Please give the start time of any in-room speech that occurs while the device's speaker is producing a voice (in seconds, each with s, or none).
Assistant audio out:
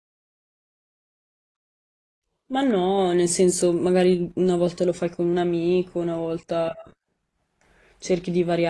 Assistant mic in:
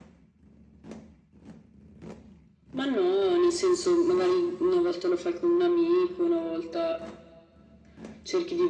none